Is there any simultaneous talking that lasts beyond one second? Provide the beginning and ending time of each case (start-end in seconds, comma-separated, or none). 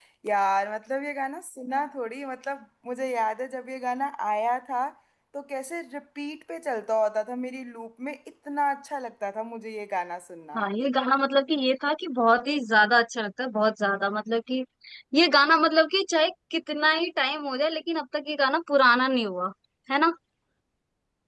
none